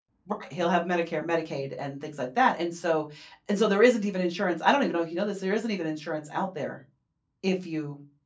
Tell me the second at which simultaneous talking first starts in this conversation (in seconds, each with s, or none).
none